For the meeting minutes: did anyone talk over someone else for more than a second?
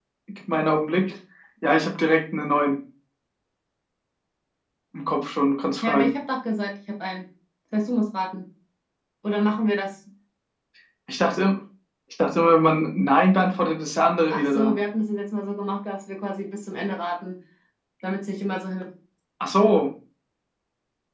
No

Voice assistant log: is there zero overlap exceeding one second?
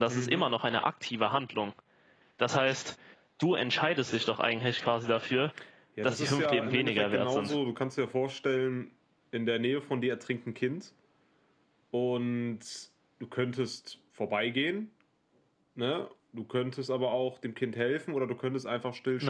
No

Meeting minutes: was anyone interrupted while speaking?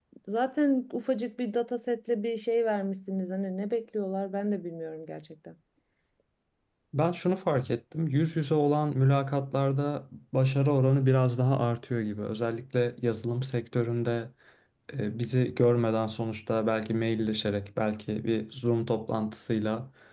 No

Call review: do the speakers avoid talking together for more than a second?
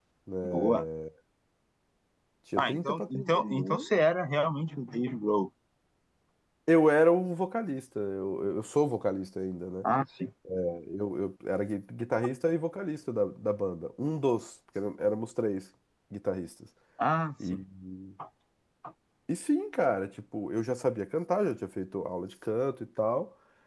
No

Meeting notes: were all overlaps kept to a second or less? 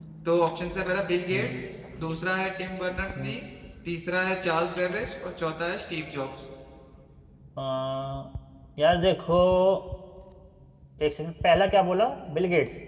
Yes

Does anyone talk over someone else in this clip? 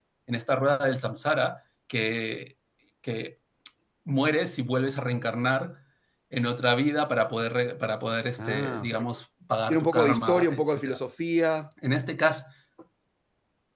Yes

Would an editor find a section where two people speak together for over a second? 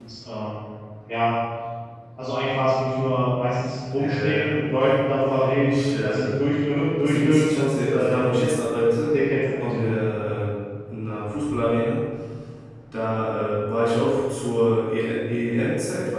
Yes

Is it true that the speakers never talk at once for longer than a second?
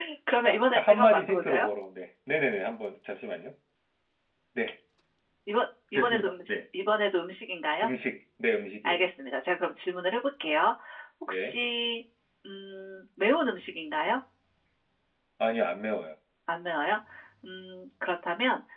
No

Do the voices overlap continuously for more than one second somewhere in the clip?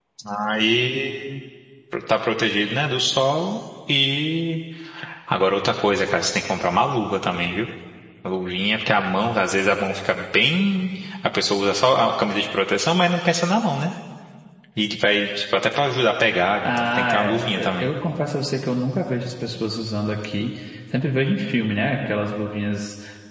Yes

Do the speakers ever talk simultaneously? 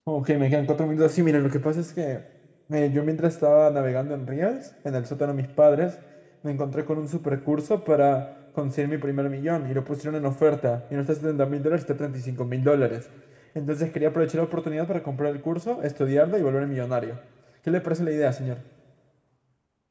No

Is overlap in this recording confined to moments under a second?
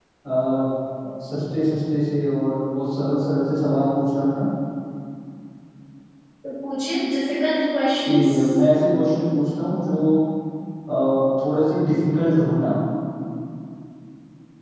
Yes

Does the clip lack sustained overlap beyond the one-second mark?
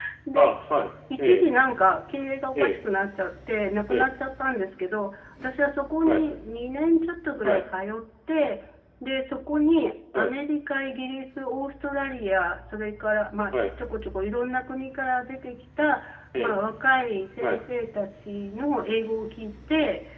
Yes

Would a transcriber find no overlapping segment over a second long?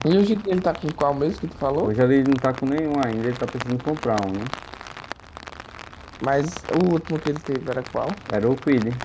Yes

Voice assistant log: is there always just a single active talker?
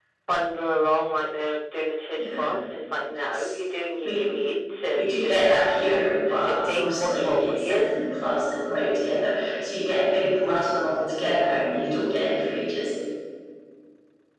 No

